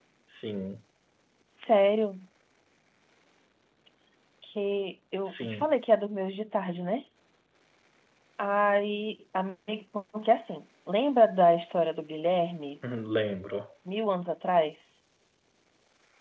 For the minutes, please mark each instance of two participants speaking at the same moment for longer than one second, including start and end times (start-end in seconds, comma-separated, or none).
none